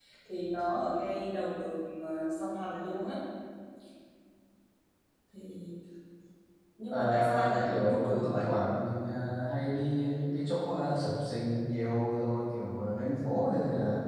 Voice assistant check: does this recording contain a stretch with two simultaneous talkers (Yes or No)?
Yes